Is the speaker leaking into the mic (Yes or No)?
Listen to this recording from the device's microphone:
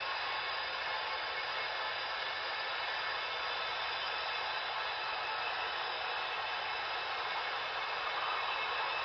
No